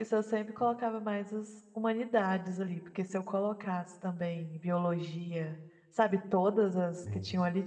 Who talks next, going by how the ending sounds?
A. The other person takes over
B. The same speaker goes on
B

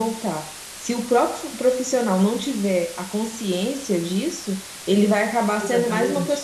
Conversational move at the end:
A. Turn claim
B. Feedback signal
B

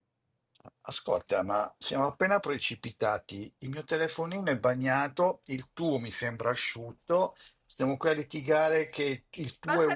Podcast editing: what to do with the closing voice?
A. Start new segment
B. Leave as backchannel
A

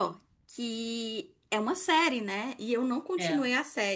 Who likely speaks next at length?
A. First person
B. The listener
A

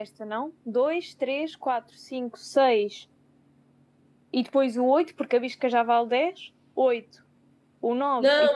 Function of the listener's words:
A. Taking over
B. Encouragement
A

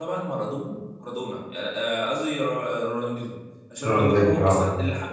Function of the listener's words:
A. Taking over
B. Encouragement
B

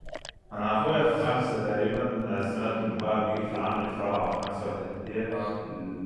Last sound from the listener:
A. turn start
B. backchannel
B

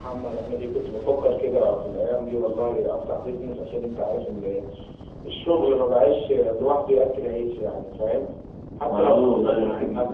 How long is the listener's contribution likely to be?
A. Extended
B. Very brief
A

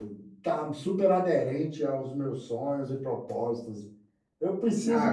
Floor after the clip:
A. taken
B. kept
A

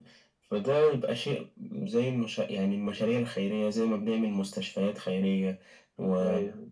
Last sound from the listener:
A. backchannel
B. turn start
A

